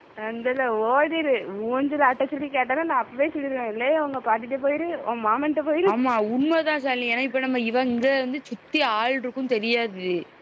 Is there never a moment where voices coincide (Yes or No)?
Yes